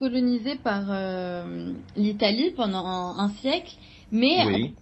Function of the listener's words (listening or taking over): listening